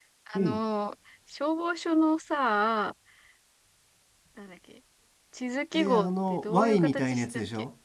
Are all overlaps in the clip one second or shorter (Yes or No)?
No